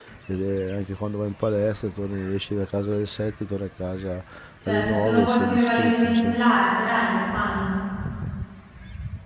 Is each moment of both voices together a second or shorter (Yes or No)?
No